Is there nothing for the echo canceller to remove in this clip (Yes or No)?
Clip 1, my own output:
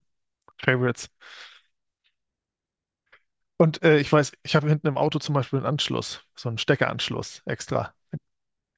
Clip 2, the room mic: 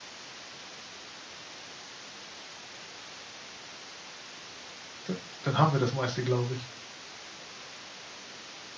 Yes